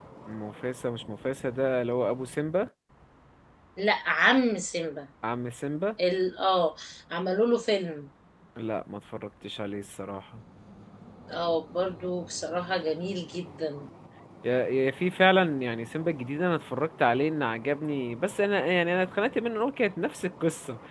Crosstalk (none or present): none